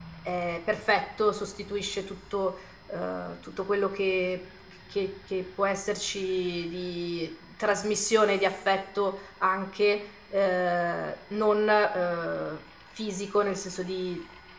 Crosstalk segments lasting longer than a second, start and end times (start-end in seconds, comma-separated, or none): none